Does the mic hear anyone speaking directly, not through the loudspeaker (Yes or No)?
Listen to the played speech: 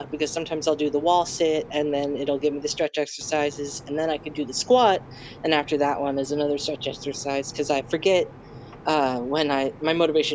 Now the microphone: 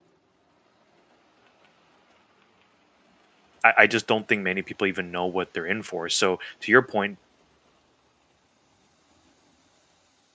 Yes